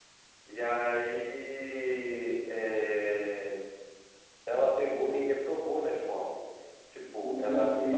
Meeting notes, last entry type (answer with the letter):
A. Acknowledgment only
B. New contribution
B